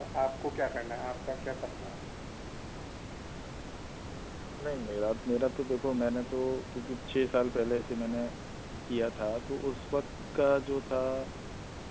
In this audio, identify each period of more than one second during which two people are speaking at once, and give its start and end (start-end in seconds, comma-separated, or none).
none